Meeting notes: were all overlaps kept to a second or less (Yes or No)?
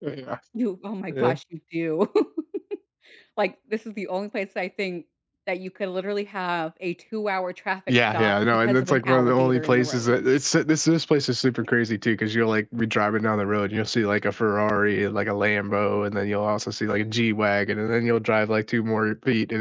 No